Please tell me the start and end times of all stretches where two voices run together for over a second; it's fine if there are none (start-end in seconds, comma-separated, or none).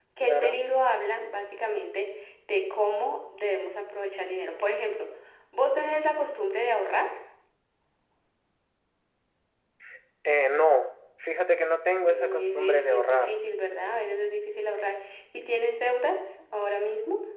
12.1-13.4